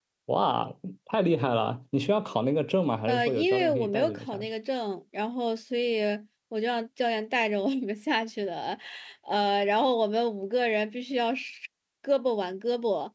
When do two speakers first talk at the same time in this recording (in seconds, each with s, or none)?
3.1 s